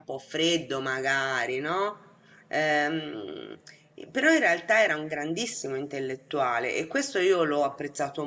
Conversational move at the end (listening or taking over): listening